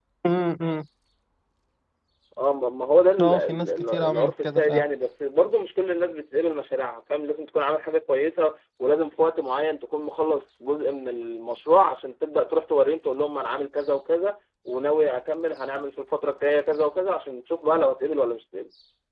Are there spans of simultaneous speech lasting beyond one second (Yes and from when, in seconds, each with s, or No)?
Yes, from 3.2 s